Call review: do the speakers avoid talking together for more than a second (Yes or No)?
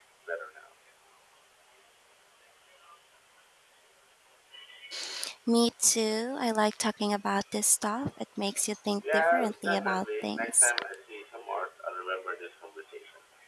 No